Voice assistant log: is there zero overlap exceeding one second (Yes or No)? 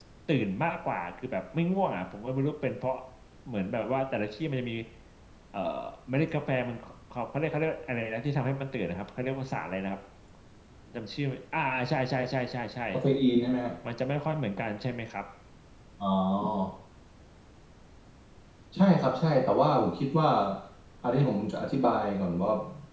Yes